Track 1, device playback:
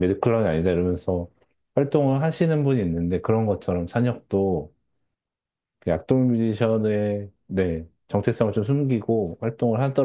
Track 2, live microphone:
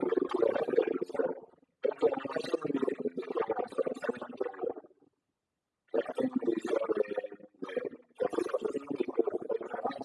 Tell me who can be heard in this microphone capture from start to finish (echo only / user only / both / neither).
echo only